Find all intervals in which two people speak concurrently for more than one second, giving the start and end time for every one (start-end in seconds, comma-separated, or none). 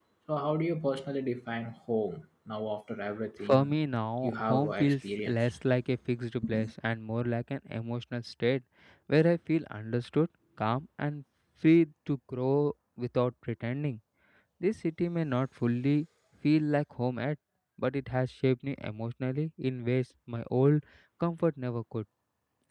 4.2-5.5